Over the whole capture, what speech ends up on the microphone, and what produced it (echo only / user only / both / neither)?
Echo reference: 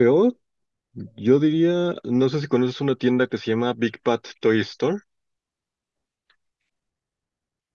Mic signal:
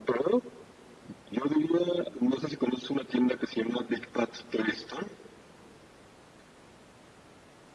echo only